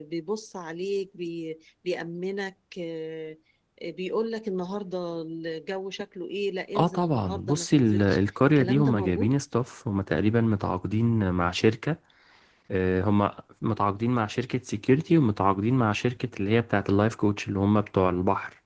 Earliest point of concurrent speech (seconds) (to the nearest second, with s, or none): 7 s